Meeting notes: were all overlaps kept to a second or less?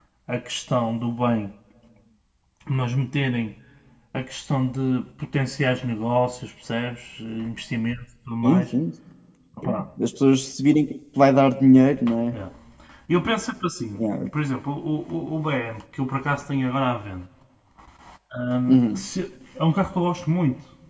Yes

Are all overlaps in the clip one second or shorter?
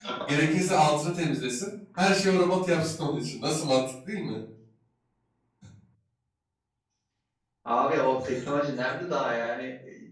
Yes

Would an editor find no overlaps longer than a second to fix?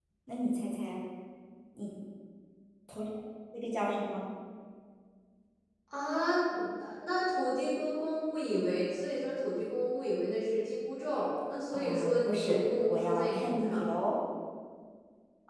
No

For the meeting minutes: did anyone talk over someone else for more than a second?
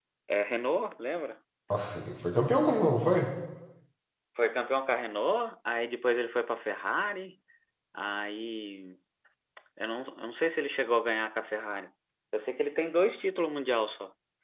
No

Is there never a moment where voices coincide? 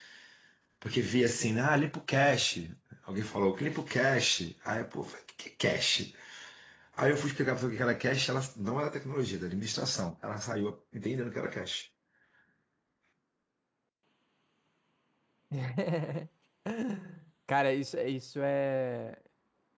Yes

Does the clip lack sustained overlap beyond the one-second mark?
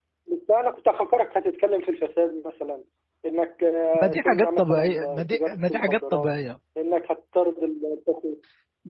No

